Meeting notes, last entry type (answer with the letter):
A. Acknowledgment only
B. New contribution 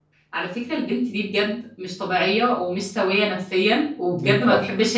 A